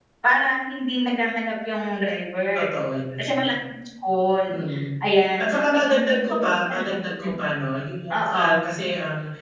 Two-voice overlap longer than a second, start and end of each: 5.4-7.3

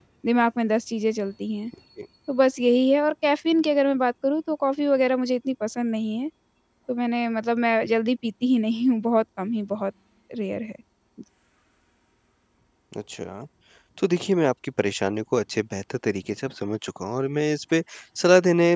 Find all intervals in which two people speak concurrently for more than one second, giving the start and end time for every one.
none

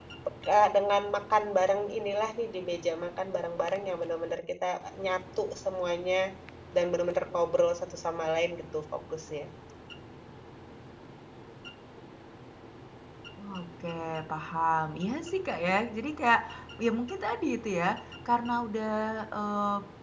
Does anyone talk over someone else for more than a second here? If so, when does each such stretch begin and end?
none

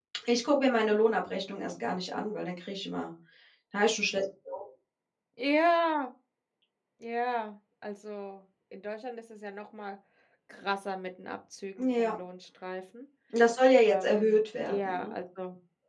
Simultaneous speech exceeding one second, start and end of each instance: 13.9-15.1

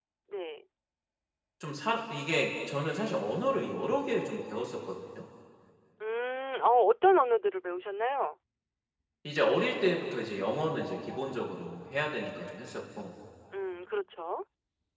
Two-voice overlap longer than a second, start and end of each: none

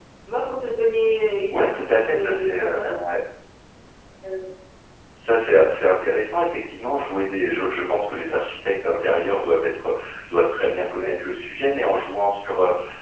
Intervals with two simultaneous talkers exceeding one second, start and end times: 1.5-2.8

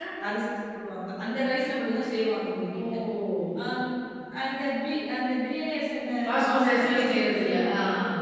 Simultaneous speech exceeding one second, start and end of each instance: 6.3-7.7

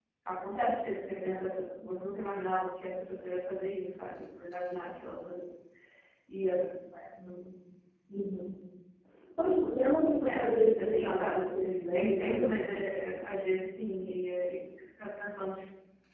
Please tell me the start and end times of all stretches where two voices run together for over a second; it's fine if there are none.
10.3-12.8

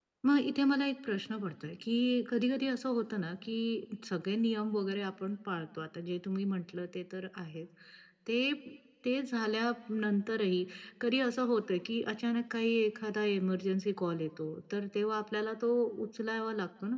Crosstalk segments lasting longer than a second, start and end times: none

